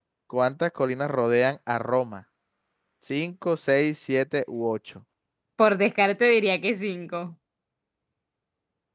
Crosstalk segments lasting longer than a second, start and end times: none

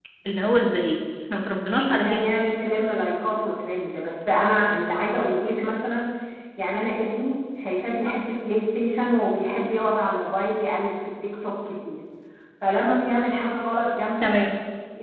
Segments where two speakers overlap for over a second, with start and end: none

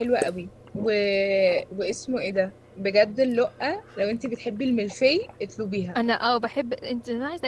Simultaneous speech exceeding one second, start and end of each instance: none

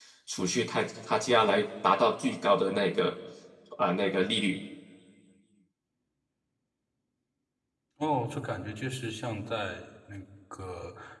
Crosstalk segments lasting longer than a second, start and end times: none

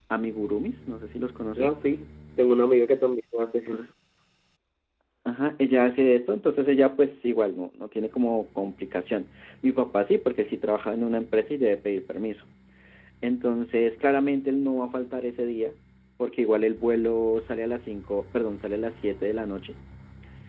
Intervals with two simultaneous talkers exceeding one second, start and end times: none

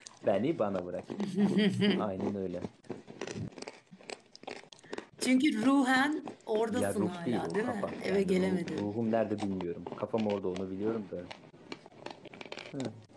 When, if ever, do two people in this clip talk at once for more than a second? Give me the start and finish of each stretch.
6.7-9.0

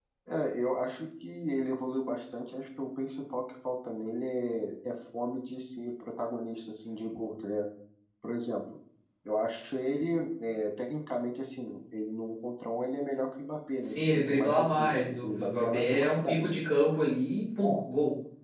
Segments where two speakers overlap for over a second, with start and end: 13.8-16.4

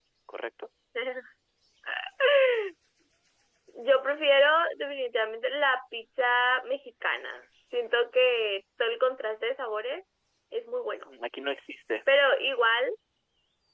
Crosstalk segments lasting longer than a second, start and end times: none

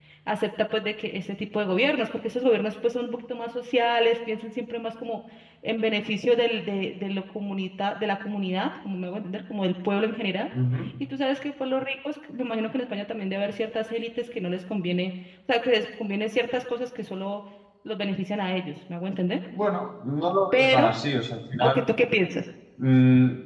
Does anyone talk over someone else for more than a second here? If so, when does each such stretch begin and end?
none

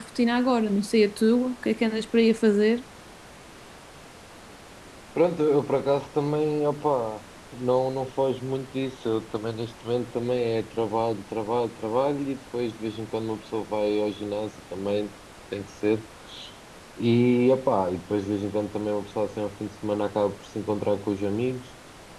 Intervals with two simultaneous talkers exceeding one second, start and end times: none

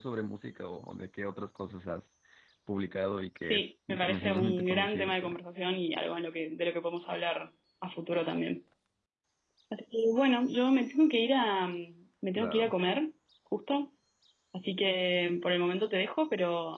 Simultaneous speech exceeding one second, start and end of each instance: 3.4-5.4

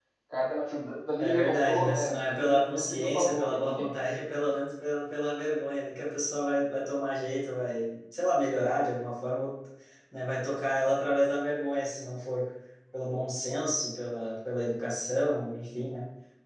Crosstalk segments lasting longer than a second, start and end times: 1.2-3.9

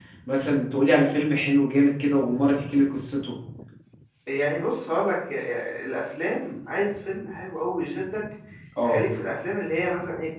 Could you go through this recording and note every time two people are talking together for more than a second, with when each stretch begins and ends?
none

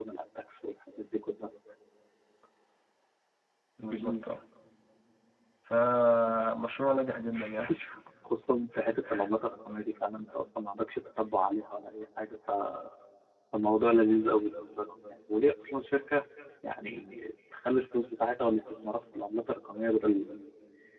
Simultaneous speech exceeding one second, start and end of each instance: none

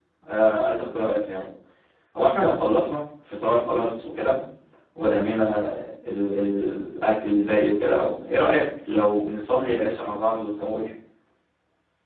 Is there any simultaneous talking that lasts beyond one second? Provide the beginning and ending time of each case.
none

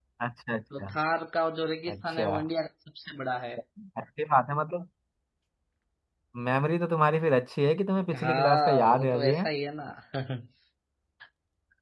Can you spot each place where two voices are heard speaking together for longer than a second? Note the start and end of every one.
8.2-9.5

